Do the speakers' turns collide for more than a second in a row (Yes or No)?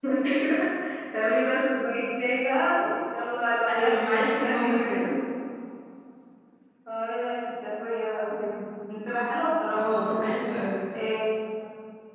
Yes